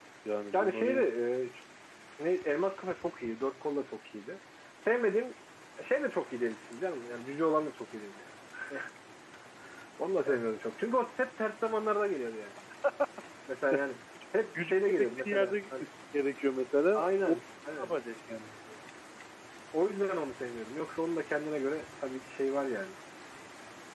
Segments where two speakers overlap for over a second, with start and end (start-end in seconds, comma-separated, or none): 14.6-15.8